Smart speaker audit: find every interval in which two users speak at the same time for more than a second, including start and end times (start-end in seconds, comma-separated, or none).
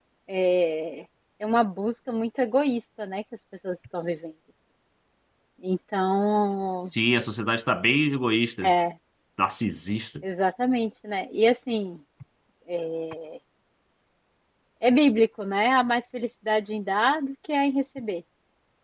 none